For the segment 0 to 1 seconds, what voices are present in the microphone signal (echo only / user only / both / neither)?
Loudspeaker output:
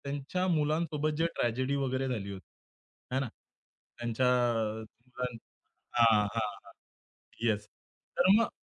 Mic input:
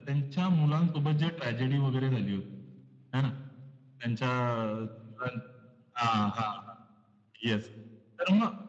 echo only